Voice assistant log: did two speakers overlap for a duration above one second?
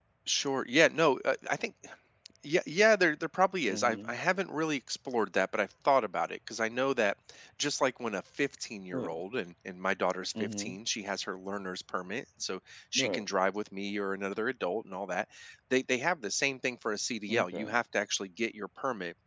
No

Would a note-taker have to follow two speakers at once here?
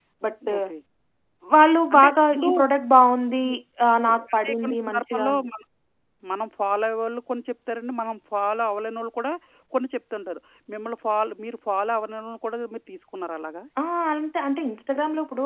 Yes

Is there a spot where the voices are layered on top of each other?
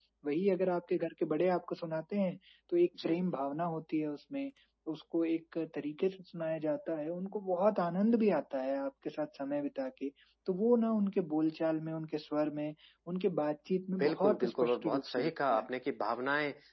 Yes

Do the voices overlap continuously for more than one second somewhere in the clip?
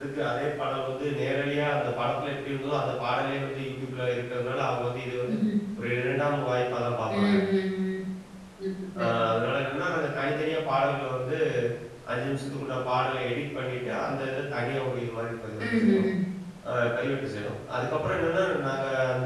No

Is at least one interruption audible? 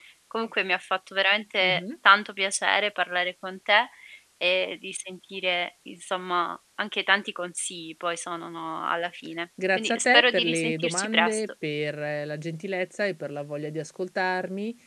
Yes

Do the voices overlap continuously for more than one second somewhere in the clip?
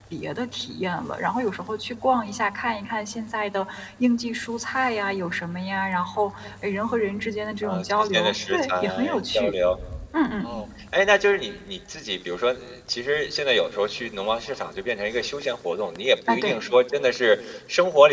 Yes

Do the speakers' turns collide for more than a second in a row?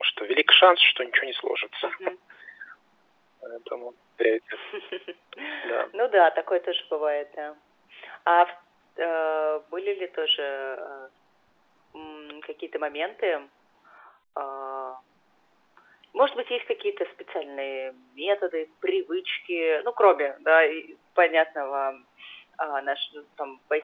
No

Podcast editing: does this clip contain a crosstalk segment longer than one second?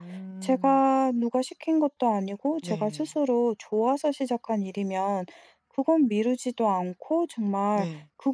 No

